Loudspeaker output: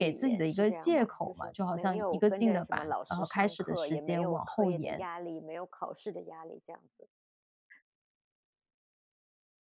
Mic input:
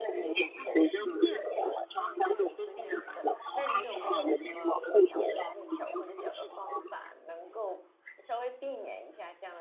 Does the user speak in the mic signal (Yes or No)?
Yes